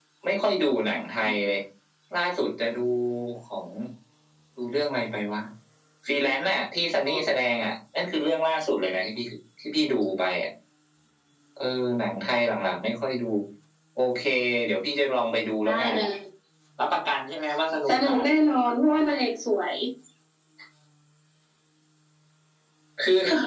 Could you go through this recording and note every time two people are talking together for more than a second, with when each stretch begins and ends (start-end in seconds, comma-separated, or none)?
none